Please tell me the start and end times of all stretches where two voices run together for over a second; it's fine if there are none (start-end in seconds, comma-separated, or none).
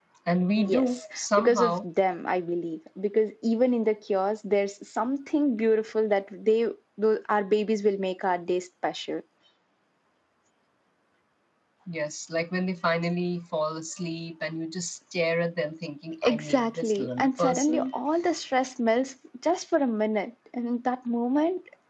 0.6-1.9, 16.2-17.9